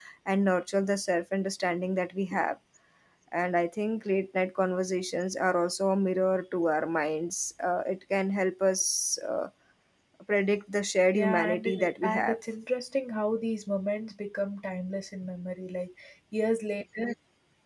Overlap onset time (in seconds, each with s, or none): 11.1 s